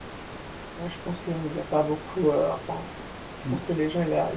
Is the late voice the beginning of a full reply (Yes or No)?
No